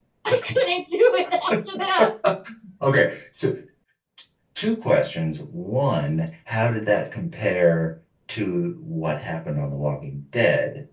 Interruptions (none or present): none